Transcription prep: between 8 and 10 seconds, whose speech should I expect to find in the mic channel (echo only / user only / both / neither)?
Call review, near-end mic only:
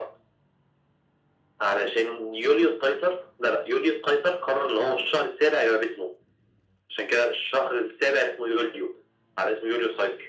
echo only